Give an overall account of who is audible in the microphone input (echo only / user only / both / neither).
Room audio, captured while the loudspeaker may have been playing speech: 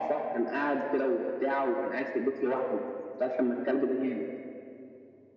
echo only